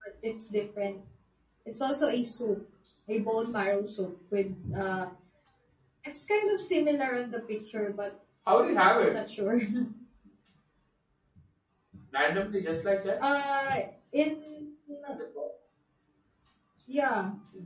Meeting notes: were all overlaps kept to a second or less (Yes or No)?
Yes